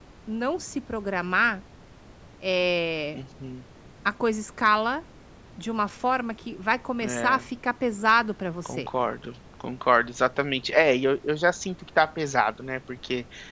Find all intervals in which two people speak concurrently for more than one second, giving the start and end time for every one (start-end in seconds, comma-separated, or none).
none